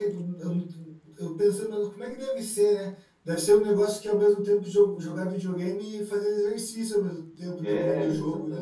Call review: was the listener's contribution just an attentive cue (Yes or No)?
No